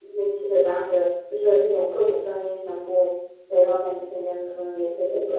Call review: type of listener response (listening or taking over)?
taking over